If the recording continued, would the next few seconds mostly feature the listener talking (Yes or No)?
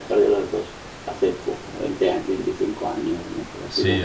Yes